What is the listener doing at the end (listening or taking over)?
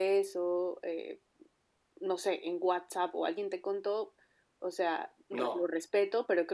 listening